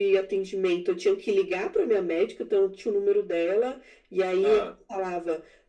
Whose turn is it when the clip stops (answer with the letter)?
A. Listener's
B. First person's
B